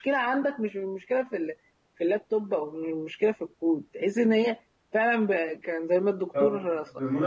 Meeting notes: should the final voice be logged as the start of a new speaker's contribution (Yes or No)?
Yes